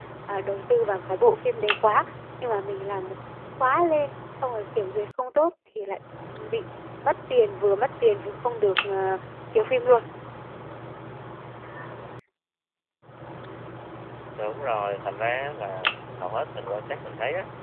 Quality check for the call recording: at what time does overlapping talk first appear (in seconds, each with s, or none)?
none